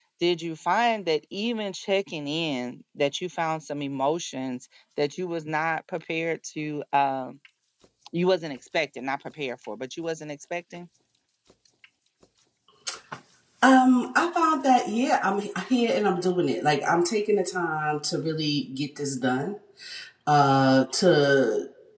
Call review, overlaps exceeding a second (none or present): none